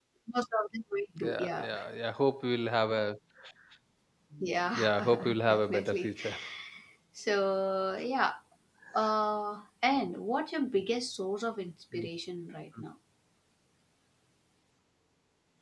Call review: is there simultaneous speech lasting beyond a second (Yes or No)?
Yes